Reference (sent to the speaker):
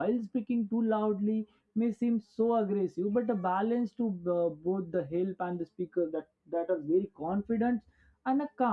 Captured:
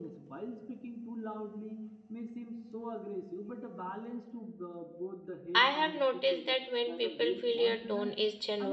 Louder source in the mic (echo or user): user